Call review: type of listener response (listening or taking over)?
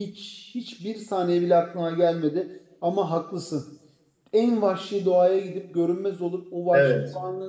listening